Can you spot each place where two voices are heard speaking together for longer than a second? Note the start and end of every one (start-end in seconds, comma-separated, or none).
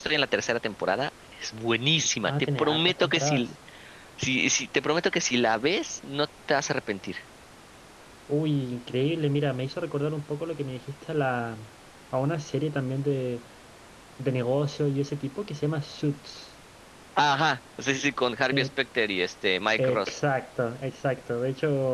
2.2-3.5